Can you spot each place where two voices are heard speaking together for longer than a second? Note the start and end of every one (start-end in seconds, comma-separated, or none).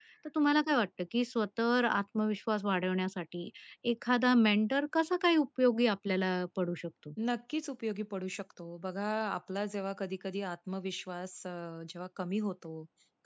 none